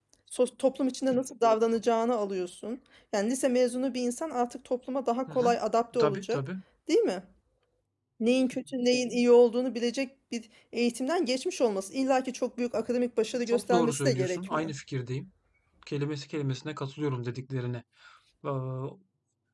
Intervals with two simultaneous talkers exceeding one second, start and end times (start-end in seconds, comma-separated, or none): 13.5-14.7